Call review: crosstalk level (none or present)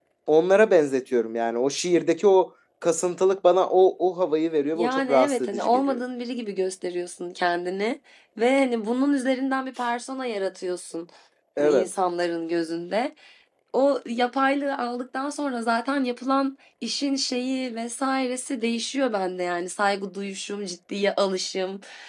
present